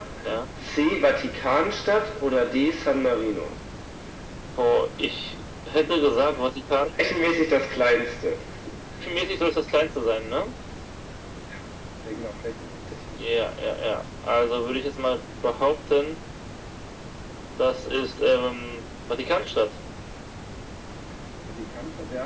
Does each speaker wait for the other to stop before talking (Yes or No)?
Yes